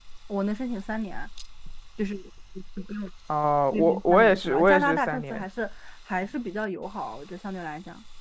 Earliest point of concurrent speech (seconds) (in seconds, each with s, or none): 3.7 s